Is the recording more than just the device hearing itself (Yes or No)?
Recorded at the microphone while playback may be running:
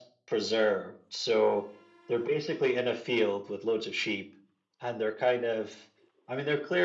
No